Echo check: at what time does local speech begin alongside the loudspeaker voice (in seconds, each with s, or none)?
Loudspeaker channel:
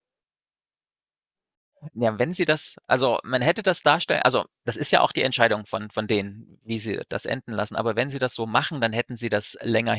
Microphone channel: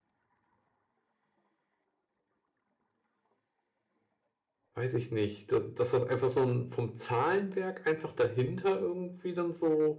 4.7 s